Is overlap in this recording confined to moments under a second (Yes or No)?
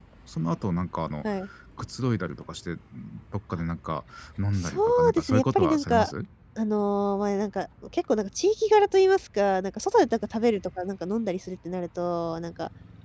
No